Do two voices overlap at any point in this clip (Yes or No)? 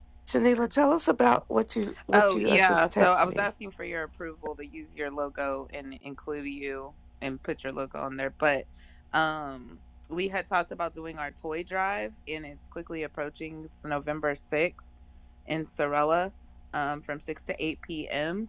Yes